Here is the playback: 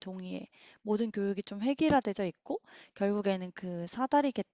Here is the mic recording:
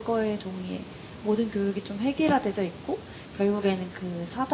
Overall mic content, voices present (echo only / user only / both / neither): echo only